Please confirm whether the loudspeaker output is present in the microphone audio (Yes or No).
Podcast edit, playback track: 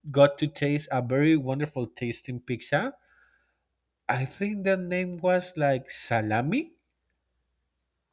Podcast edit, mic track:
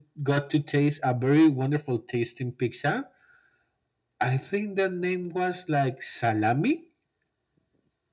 Yes